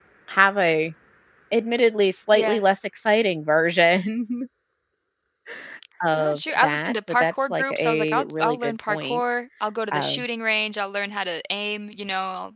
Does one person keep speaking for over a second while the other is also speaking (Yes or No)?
Yes